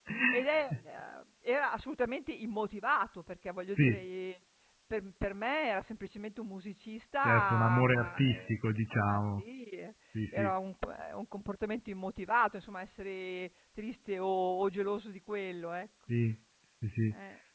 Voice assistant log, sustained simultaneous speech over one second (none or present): present